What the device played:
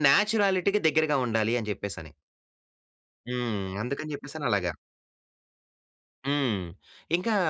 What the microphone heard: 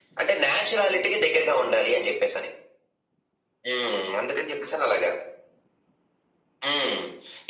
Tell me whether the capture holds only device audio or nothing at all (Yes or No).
Yes